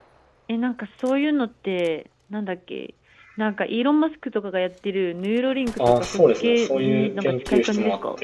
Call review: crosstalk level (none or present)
present